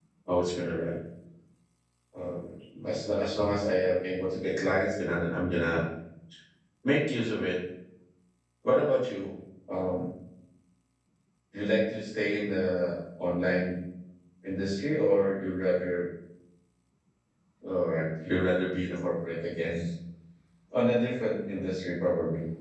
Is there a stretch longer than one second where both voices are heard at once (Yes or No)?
No